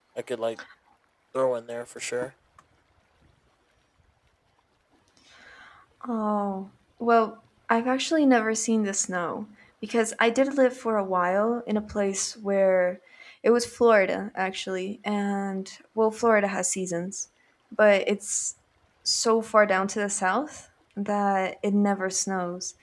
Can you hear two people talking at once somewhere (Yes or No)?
No